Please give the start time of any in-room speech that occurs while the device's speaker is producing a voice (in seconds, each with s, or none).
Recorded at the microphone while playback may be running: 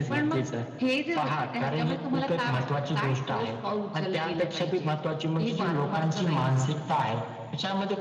none